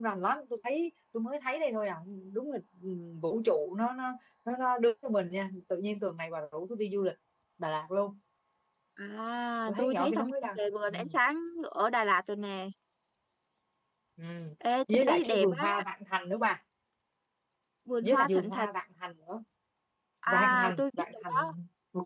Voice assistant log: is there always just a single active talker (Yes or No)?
No